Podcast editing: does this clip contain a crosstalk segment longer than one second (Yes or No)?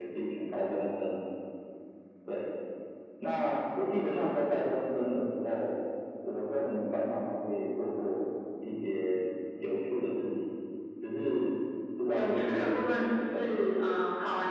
Yes